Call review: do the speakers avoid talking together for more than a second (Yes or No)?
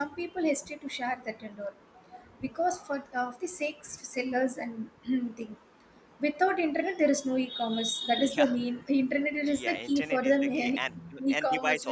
No